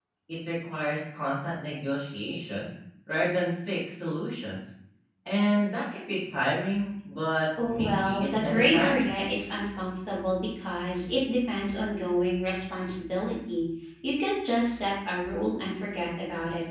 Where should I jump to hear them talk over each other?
7.6 s

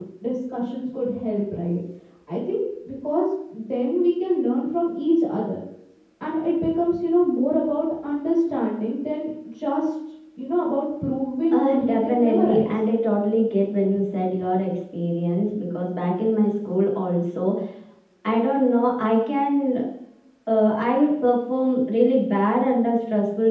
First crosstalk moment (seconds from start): 11.5 s

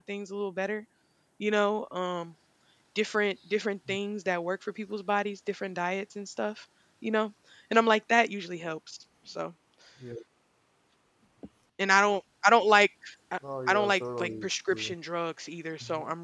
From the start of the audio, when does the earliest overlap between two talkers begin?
13.7 s

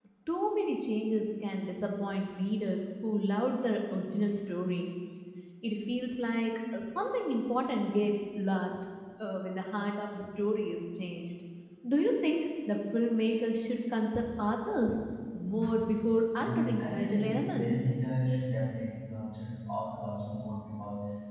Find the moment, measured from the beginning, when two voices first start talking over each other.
16.4 s

